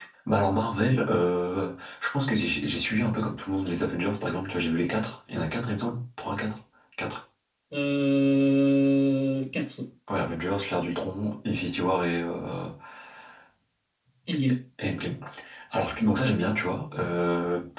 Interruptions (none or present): none